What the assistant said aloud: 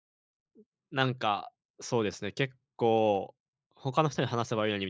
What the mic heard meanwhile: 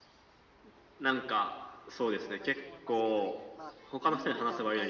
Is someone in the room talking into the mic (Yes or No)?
Yes